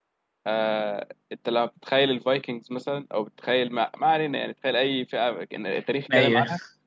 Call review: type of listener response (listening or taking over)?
listening